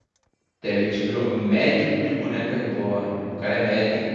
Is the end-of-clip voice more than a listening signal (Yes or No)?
No